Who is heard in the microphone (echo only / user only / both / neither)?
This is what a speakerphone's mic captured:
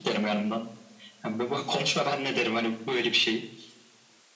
echo only